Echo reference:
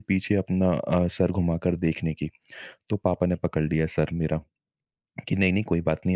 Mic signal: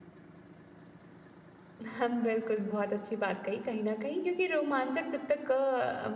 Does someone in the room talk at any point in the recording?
Yes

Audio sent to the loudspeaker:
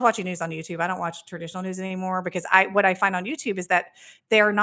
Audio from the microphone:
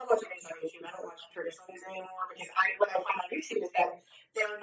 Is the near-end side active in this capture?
No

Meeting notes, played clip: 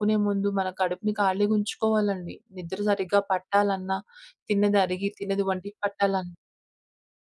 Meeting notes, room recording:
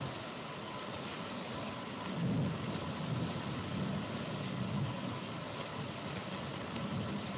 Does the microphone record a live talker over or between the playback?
No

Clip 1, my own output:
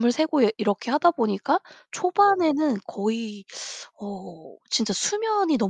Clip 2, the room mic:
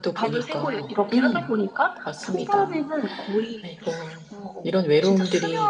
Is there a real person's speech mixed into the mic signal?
Yes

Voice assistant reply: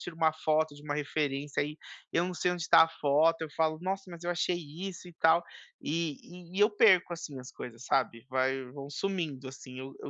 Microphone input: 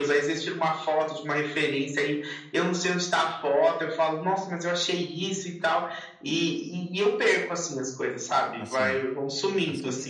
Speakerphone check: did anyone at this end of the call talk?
Yes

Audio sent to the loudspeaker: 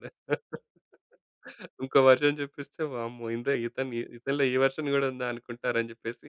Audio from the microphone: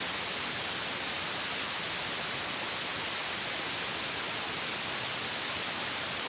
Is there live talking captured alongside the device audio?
No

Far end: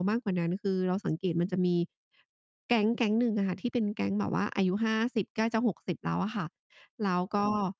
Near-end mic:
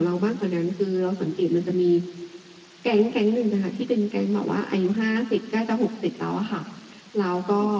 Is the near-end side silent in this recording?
Yes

